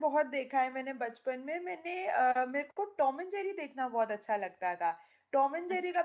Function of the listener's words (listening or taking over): listening